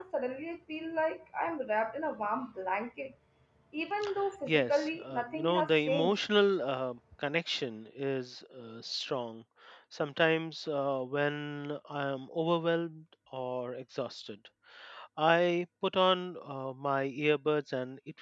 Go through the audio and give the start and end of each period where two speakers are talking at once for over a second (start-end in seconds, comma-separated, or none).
4.5-6.1